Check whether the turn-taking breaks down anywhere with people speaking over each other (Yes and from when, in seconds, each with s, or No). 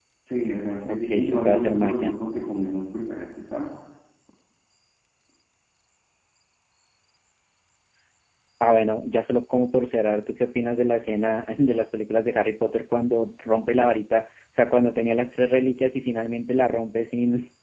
Yes, from 0.9 s